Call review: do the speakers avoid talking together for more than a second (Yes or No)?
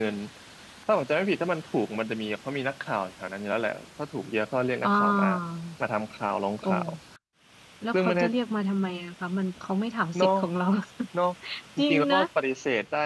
Yes